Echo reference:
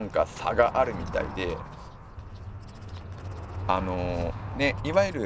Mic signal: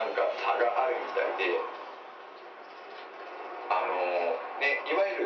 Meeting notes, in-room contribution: none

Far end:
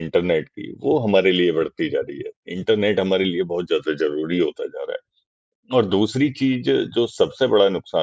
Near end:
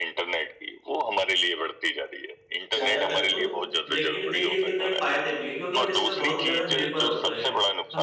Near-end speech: present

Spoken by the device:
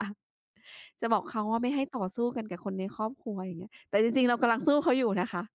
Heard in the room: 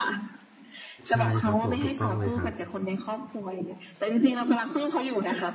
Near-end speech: present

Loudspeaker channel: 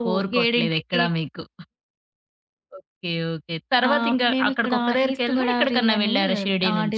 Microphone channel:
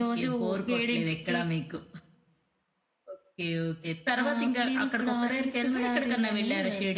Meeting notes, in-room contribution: none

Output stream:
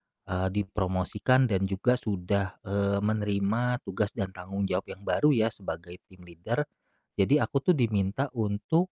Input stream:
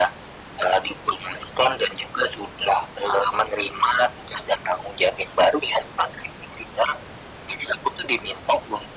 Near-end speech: none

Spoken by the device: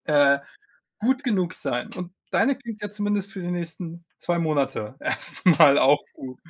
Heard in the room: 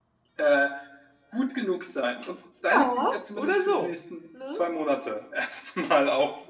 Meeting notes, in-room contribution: present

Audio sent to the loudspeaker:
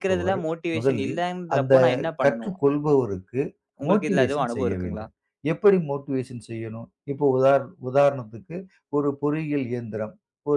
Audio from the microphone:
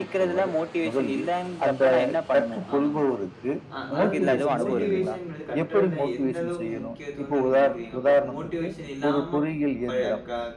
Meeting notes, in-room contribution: present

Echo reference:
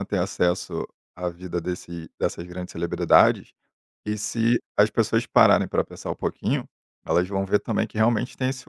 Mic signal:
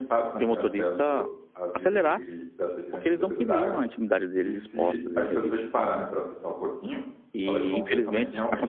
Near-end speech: present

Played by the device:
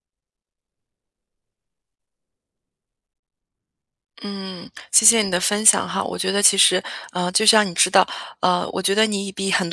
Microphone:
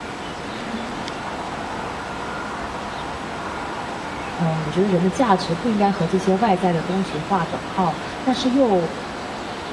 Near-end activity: present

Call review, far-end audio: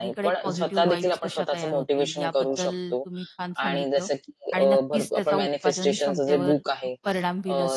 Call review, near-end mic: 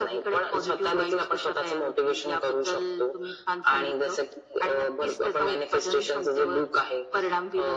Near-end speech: none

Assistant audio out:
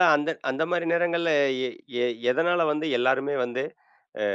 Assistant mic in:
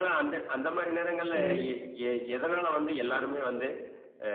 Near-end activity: present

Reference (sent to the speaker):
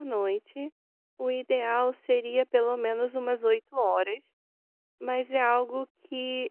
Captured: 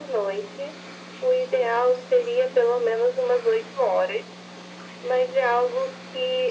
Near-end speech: none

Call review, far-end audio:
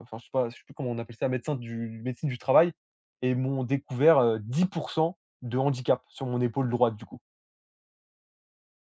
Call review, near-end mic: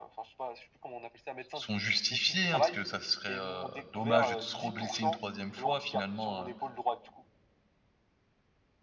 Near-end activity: present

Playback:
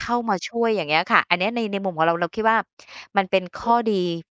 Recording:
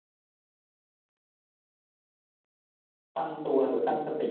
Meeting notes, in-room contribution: present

